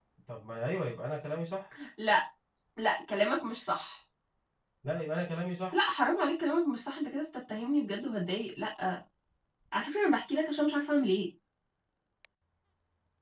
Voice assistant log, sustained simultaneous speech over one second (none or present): none